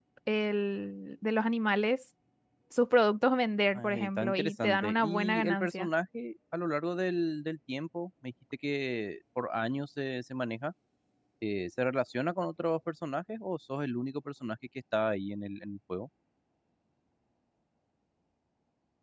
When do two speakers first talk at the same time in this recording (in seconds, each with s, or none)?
3.7 s